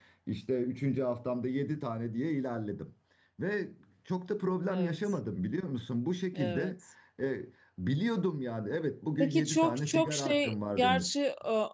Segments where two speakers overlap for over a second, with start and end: 9.2-11.1

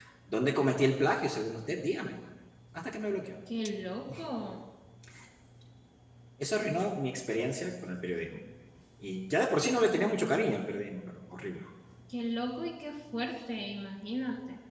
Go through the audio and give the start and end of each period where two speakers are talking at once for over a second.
none

